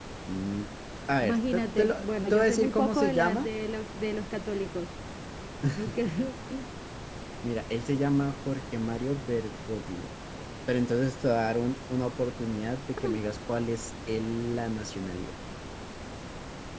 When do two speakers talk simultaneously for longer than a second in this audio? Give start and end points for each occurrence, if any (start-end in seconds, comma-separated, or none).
1.2-3.5